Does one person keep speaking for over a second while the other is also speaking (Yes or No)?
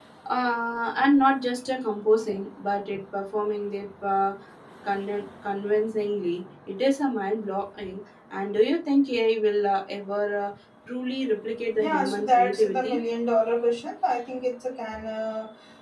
Yes